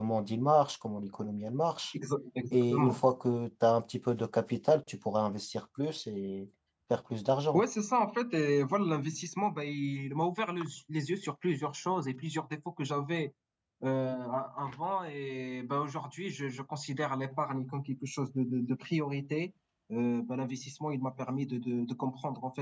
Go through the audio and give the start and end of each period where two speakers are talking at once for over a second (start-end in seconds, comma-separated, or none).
none